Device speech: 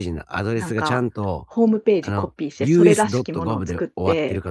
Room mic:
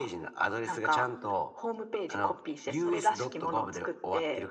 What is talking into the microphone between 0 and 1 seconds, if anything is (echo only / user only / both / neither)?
echo only